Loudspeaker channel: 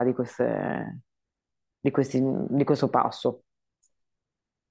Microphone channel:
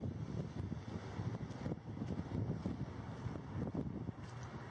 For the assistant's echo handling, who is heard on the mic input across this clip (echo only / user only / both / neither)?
neither